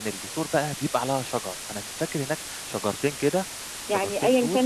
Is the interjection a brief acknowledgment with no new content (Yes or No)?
No